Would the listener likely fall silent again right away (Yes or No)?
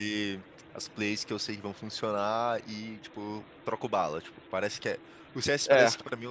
Yes